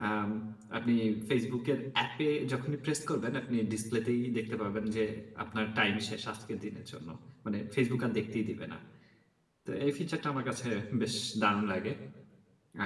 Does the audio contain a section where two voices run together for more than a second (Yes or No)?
No